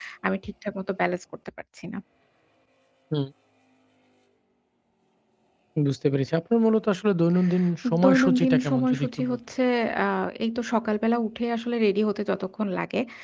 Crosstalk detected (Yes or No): Yes